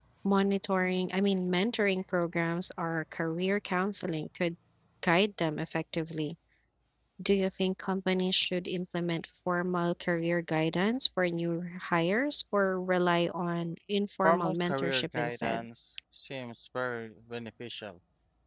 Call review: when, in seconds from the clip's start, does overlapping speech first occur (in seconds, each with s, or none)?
14.2 s